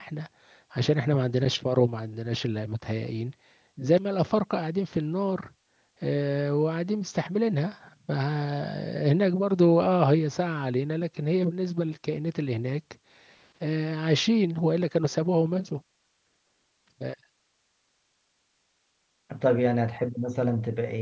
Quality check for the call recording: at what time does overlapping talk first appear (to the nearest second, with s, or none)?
none